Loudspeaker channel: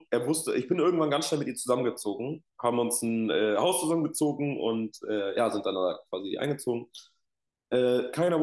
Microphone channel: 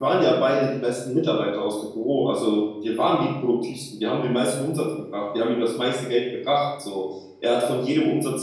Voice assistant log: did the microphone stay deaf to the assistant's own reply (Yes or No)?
Yes